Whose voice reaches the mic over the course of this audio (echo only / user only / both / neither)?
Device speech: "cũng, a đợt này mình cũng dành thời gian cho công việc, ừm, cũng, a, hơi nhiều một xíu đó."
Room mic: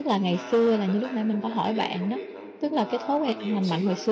both